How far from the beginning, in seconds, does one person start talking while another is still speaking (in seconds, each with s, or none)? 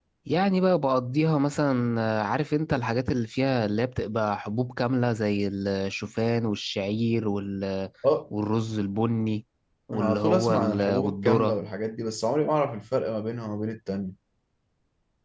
9.9 s